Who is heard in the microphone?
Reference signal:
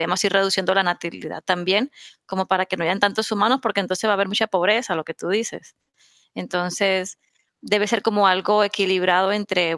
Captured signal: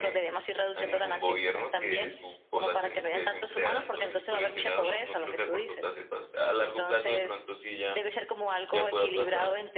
both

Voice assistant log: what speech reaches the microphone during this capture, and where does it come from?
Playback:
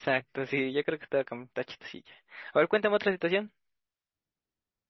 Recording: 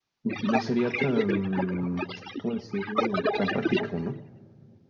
both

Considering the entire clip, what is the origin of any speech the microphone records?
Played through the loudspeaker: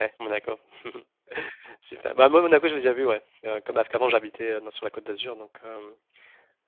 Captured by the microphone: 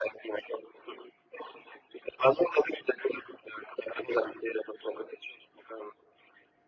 echo only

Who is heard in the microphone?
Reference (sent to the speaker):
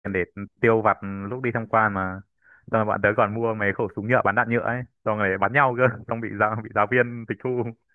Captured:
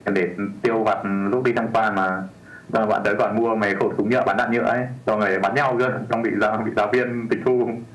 echo only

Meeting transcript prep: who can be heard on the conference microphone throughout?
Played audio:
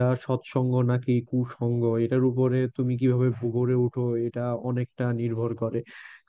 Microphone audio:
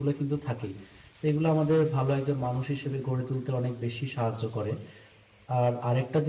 user only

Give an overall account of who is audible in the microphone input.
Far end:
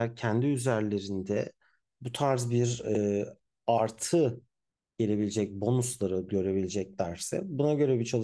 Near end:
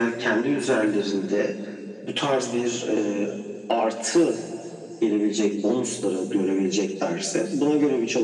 echo only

